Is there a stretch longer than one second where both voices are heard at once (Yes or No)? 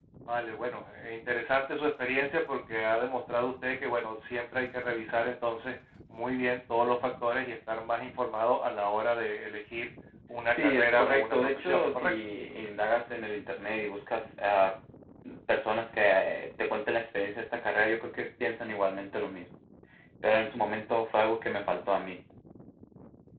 Yes